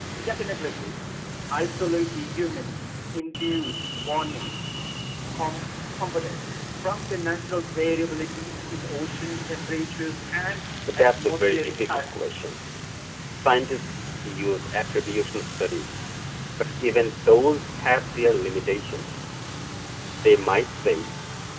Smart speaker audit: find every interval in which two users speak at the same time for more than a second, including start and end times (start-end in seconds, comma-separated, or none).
11.0-12.4